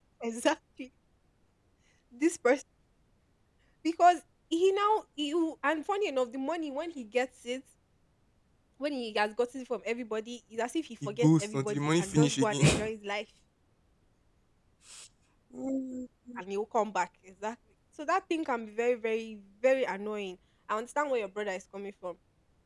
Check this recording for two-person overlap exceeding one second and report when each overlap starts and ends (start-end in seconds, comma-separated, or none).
11.1-12.9